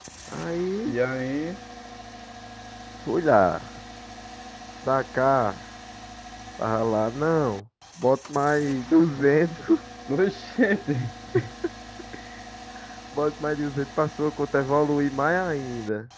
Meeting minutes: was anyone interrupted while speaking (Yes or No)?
No